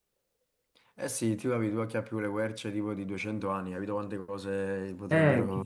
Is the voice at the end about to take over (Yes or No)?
Yes